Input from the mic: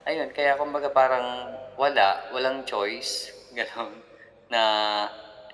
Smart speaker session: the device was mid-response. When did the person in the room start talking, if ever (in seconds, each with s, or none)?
none